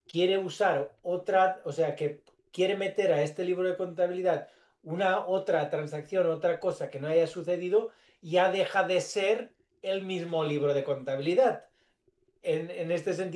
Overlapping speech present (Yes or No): No